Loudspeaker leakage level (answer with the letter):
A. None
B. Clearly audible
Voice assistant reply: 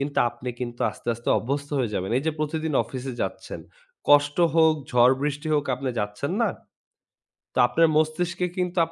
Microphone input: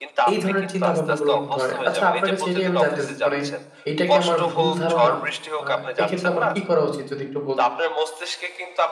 B